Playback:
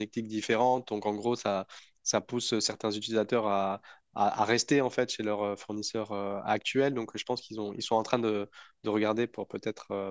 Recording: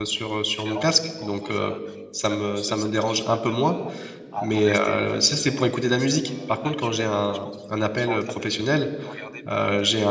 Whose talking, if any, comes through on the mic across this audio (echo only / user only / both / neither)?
both